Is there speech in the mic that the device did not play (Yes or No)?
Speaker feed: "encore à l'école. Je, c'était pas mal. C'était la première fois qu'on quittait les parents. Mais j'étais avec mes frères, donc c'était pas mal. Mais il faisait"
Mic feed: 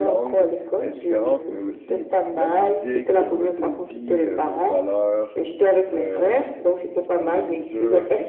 Yes